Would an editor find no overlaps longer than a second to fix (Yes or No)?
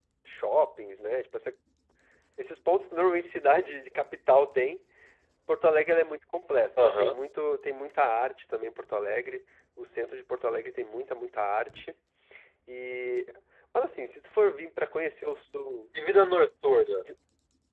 Yes